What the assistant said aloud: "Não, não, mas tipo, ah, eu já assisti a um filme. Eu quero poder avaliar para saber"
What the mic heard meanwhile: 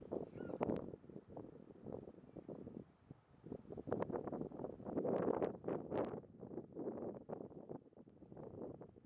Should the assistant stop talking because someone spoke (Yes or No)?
No